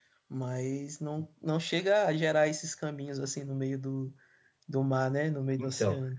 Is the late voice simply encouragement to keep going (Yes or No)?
No